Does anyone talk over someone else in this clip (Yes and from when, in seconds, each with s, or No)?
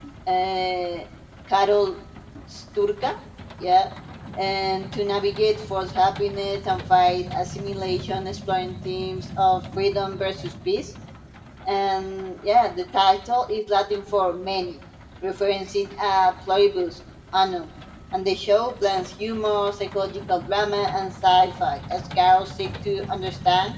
No